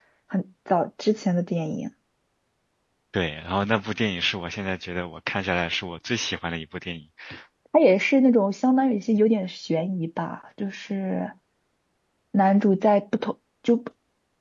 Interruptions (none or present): none